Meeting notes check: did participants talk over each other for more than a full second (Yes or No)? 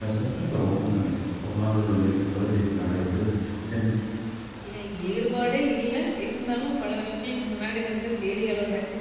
No